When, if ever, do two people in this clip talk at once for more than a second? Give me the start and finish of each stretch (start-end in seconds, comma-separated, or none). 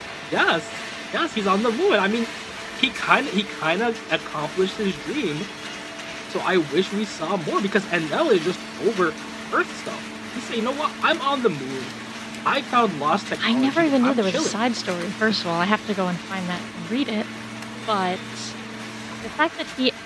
13.4-14.6